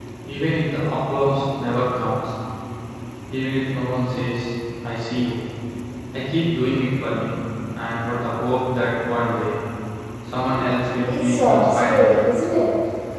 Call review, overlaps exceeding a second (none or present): present